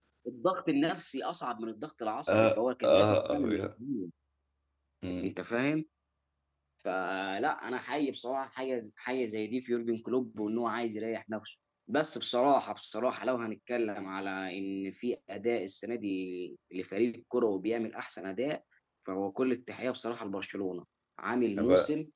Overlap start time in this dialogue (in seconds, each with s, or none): 2.3 s